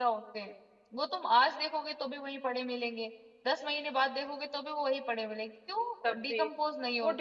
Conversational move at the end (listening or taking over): taking over